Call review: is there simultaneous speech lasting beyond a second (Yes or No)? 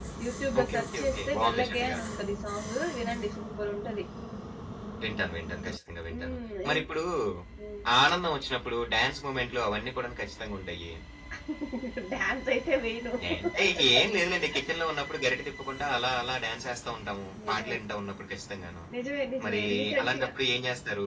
Yes